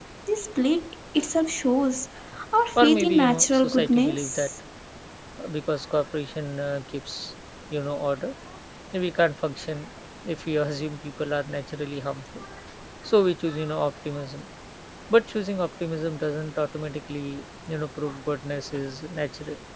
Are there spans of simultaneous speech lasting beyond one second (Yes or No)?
Yes